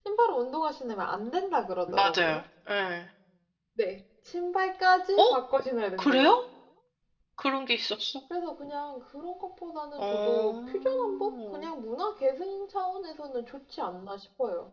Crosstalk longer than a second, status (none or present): present